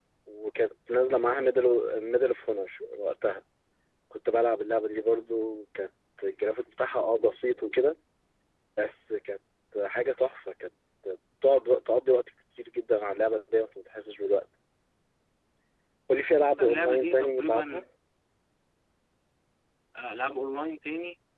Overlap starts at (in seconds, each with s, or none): 16.6 s